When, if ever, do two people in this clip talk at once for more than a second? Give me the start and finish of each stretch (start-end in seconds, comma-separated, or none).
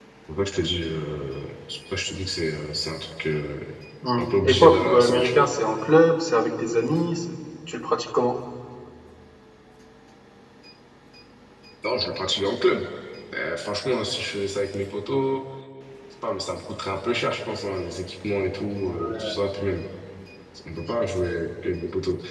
4.2-5.5